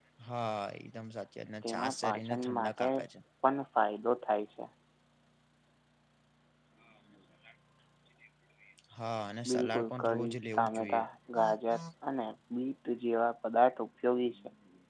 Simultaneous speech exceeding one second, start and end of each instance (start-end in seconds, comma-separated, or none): 1.6-2.9, 9.5-11.0